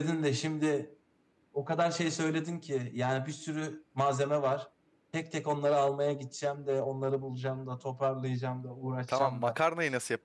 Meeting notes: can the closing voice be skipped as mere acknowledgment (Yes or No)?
No